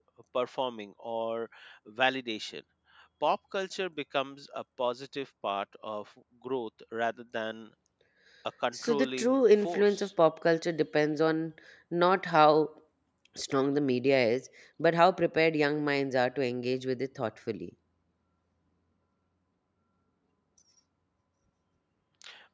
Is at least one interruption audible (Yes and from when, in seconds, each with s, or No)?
Yes, from 8.7 s